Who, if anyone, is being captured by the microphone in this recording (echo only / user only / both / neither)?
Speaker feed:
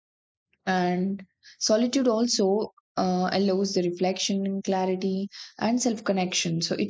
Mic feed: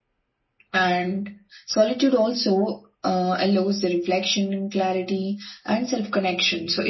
echo only